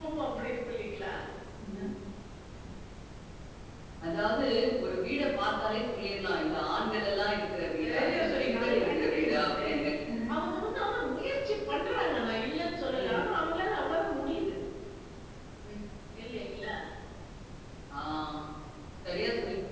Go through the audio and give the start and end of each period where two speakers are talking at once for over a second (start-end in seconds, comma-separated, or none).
7.8-9.7